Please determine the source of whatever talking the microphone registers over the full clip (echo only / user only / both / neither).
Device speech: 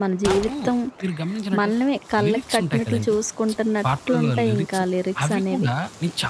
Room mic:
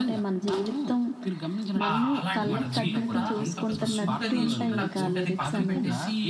both